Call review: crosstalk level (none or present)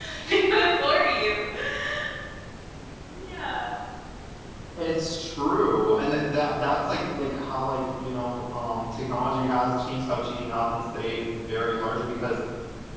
none